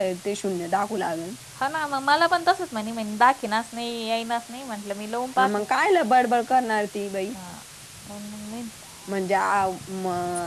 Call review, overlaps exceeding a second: none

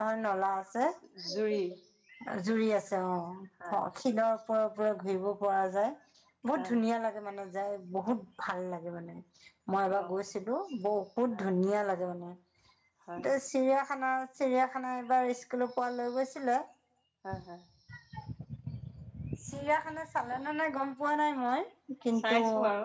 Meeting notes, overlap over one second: none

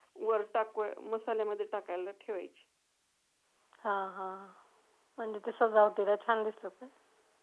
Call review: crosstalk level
none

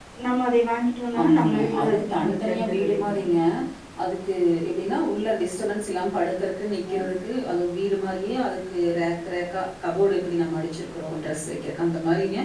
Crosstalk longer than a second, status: present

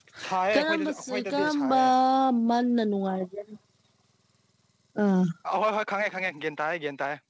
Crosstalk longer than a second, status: present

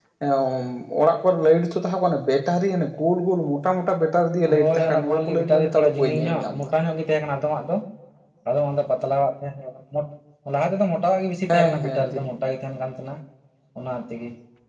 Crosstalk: present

